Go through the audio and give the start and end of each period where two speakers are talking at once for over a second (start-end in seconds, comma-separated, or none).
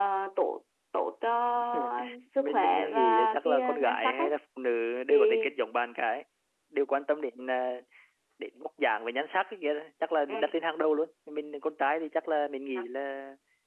2.4-4.3